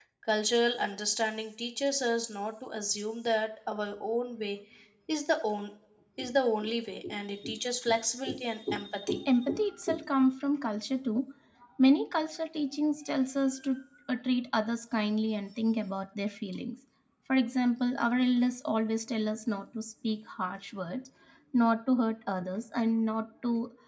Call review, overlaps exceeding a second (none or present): none